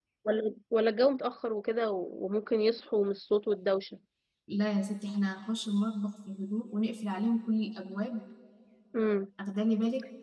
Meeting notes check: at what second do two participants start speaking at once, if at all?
none

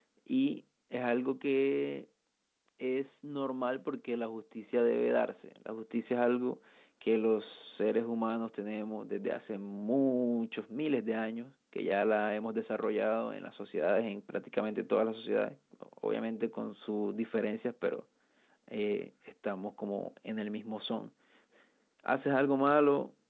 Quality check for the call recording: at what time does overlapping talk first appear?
none

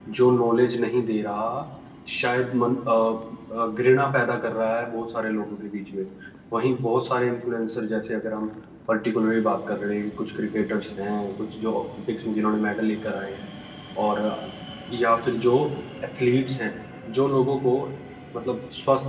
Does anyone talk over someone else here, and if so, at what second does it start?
none

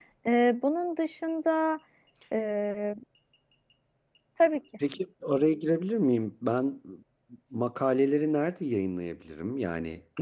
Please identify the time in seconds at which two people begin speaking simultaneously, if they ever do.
none

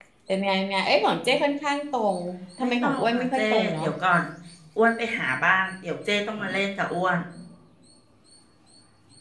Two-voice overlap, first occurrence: 2.6 s

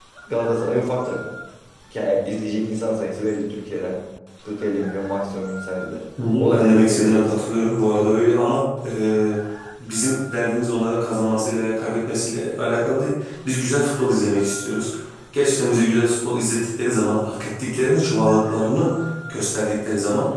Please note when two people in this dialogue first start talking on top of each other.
6.2 s

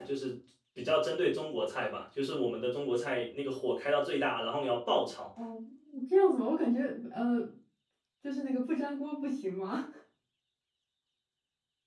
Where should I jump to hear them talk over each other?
none

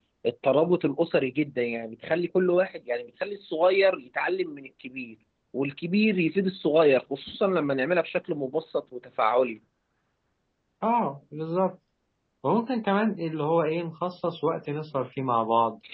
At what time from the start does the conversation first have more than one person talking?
none

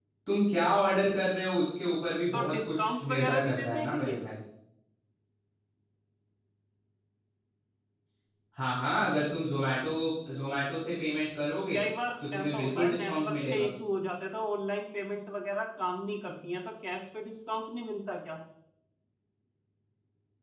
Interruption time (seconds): 2.3 s

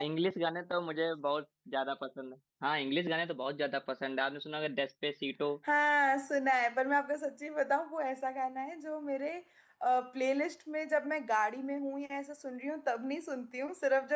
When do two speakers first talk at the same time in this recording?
none

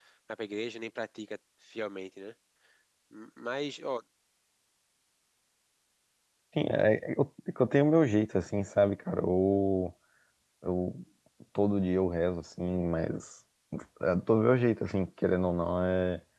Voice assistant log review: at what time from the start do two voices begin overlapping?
none

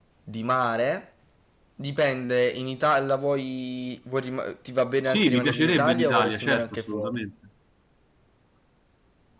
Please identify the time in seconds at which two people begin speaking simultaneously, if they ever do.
5.0 s

